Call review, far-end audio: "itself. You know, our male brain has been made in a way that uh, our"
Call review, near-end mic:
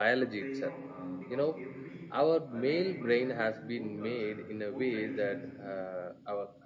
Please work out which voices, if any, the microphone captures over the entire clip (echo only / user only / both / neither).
both